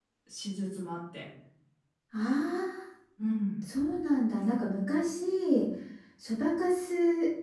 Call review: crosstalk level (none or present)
none